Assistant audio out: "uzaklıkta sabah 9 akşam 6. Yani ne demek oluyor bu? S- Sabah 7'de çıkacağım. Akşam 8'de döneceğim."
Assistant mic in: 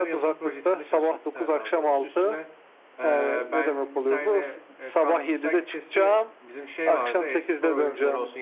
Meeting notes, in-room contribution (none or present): present